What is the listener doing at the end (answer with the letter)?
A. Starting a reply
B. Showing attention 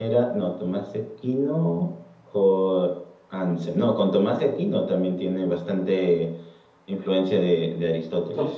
A